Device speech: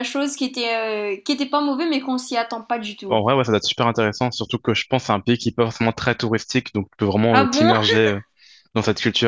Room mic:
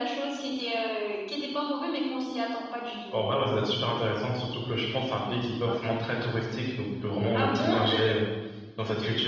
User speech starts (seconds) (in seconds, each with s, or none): 5.7 s